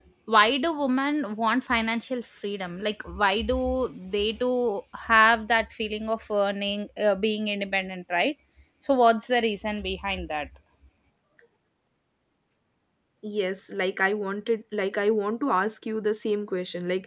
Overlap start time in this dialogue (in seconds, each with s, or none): none